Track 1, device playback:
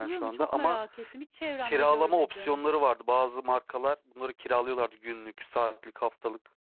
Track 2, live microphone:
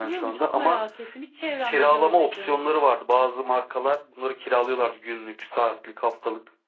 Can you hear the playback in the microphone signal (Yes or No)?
Yes